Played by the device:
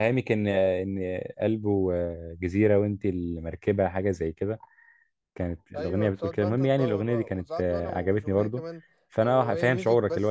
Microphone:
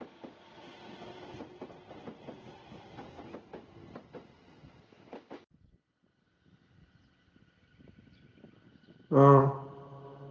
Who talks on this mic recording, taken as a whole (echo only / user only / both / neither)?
user only